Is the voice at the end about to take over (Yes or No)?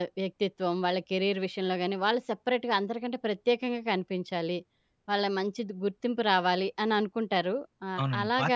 Yes